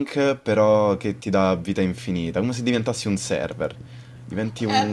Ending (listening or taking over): taking over